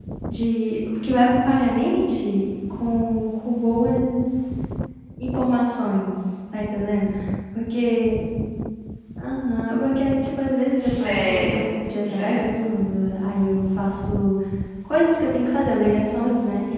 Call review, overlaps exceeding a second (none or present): present